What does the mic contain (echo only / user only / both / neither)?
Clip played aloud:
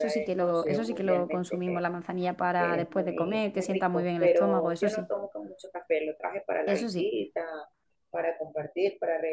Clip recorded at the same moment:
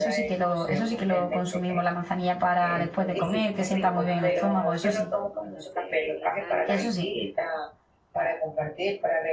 both